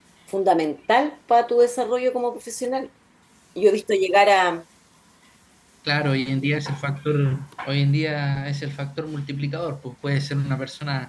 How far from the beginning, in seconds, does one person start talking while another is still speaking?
none

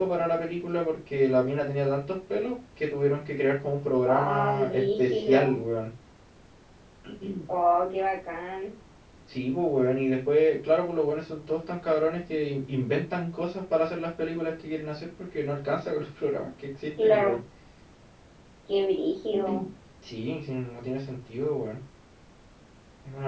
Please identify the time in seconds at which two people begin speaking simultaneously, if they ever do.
4 s

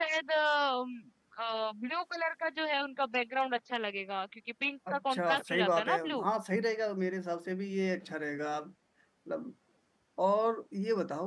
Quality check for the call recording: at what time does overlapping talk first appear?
5 s

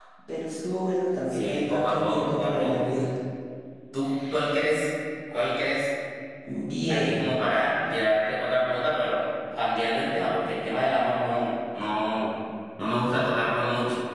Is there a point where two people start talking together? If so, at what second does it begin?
1 s

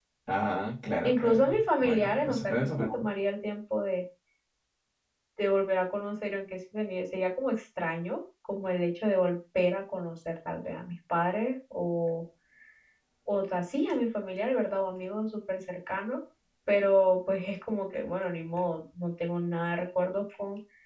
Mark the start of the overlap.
1 s

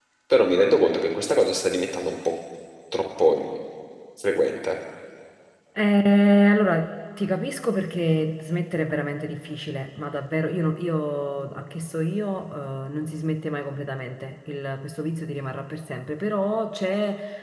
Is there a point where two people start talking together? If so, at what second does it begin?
none

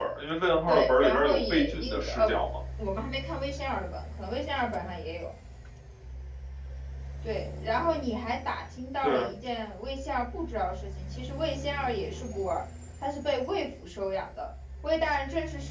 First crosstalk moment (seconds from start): 1 s

